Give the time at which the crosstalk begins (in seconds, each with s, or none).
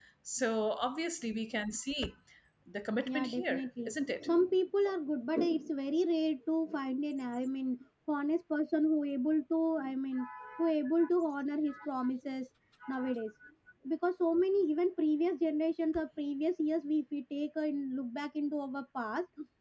3.1 s